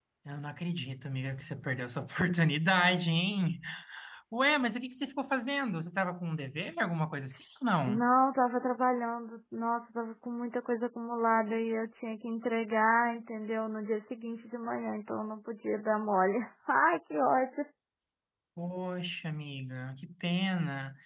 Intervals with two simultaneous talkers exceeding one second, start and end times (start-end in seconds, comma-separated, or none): none